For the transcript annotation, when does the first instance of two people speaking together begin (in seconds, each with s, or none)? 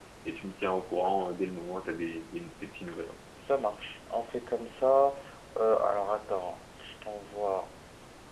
none